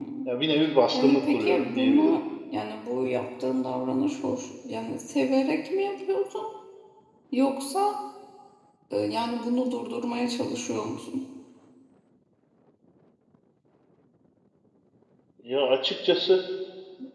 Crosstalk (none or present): present